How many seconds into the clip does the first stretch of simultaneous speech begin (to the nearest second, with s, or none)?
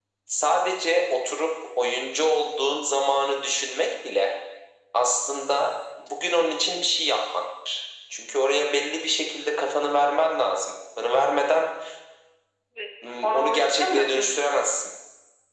13 s